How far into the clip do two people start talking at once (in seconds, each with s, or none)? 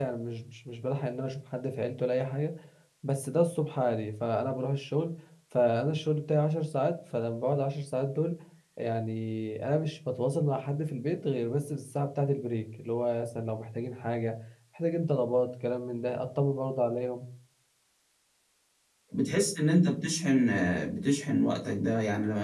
none